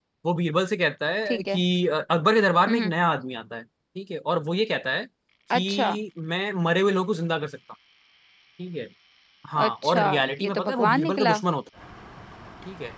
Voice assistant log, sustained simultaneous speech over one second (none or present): present